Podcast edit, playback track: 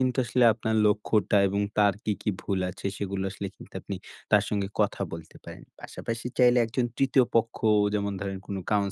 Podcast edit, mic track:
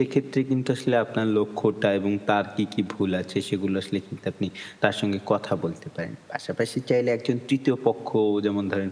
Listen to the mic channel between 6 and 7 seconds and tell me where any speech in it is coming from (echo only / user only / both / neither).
echo only